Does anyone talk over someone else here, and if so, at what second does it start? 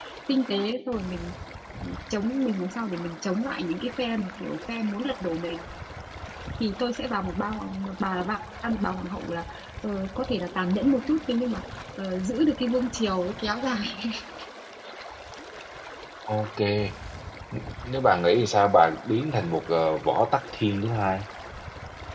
none

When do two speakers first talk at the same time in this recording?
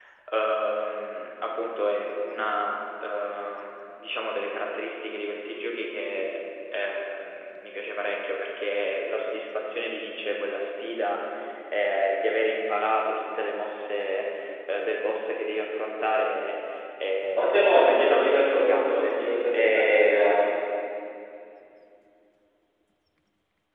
17.3 s

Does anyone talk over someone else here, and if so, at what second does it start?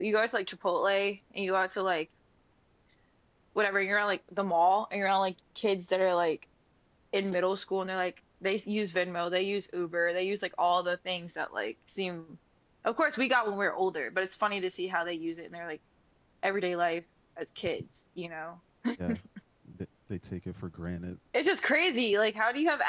none

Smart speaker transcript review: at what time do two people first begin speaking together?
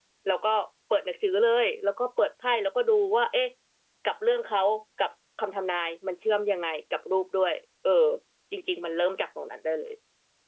none

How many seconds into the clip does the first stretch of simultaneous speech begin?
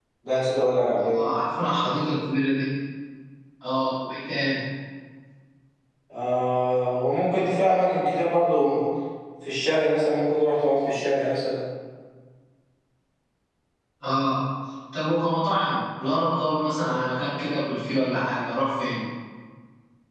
none

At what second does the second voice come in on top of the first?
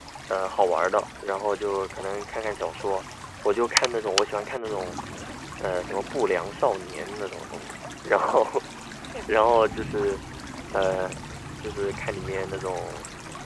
none

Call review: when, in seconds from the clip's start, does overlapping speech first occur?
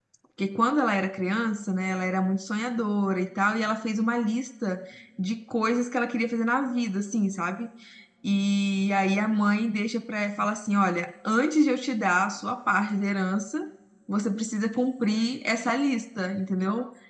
none

